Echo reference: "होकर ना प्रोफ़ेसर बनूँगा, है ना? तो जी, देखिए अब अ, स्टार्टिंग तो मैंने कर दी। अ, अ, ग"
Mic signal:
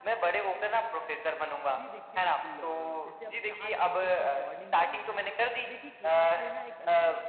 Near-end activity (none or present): present